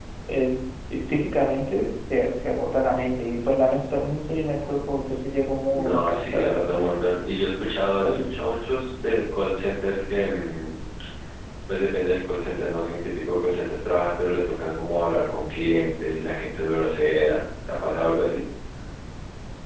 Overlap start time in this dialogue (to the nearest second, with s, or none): 6 s